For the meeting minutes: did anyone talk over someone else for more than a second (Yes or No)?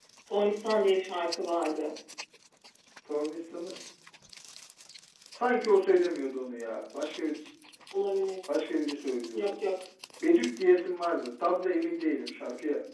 No